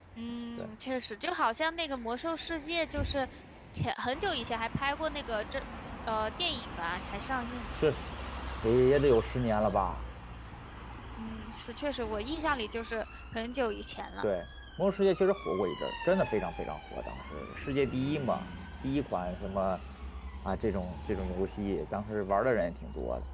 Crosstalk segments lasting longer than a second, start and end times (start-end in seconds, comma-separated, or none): none